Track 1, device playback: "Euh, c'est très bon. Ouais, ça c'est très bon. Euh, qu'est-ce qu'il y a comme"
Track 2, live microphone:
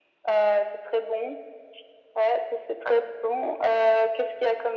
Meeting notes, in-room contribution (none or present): none